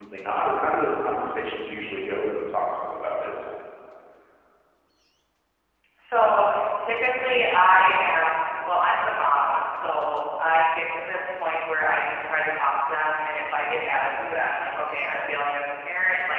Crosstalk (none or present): none